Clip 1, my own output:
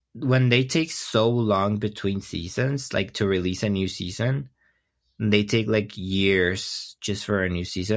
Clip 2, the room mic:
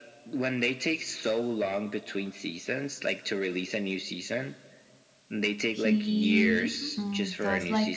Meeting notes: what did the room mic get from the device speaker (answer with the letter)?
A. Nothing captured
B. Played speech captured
B